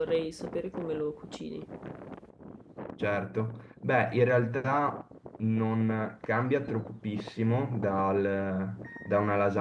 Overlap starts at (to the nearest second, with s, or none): none